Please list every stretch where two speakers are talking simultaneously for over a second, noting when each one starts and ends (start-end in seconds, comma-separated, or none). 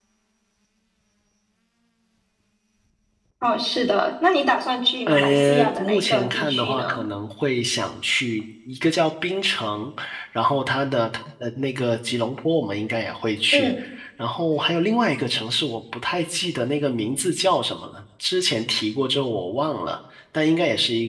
5.1-7.0